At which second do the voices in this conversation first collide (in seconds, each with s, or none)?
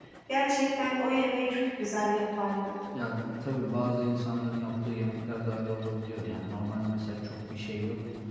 none